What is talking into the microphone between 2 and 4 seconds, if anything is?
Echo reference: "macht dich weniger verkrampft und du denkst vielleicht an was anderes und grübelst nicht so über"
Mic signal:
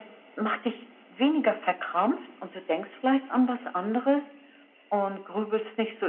echo only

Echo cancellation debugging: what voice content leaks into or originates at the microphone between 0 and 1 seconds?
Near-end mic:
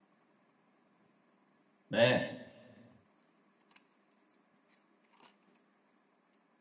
neither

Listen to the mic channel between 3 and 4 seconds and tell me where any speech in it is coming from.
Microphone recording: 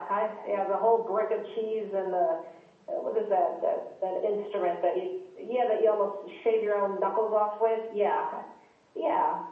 echo only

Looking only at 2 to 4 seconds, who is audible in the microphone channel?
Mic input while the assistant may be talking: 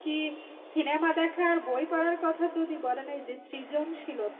user only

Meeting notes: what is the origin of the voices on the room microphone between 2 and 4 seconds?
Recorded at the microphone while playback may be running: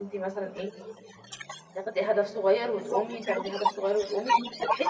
both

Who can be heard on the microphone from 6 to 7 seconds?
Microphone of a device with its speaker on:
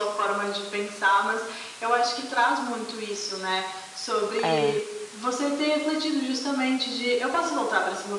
echo only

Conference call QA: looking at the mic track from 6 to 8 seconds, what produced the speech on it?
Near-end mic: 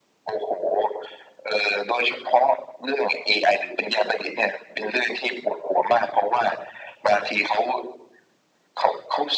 echo only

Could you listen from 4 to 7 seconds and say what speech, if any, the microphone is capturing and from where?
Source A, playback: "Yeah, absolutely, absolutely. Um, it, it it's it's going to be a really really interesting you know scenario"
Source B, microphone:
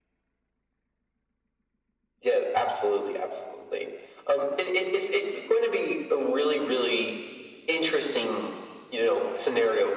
echo only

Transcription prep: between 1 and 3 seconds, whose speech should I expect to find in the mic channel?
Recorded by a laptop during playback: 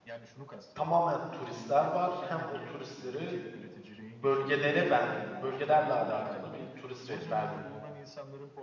both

